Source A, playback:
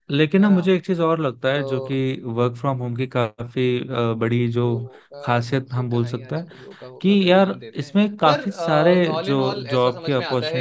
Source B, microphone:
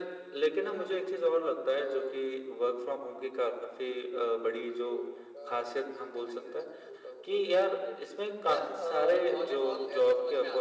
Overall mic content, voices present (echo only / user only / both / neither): echo only